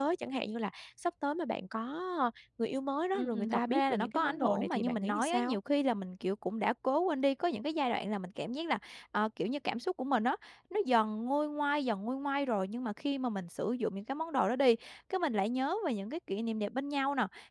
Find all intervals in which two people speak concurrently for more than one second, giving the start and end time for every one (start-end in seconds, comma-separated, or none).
3.1-5.6